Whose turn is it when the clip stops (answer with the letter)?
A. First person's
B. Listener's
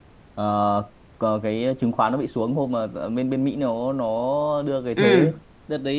A